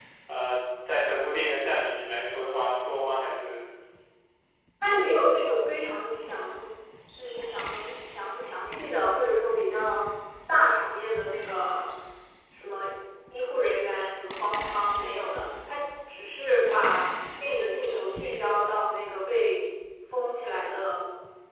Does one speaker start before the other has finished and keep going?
No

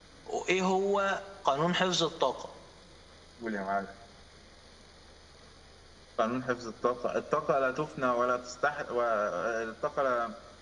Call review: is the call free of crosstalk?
Yes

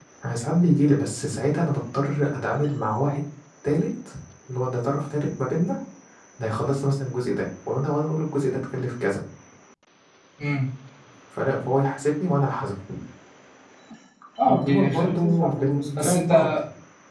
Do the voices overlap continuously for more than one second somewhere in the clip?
Yes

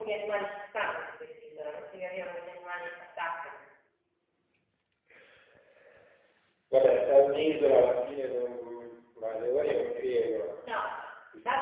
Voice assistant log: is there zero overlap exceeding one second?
Yes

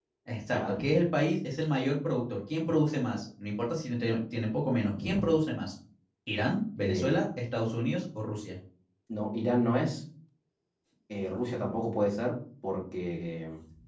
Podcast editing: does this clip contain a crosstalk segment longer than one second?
No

